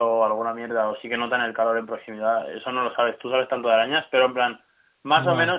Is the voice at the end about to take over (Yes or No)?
No